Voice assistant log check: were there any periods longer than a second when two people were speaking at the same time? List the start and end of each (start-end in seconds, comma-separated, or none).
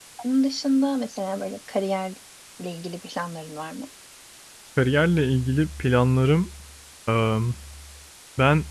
none